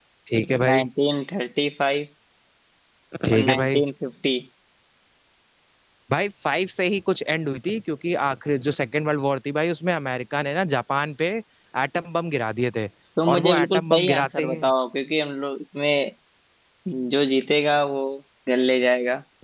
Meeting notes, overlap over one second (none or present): present